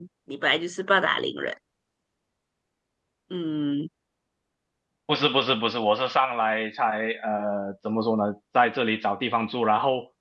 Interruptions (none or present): none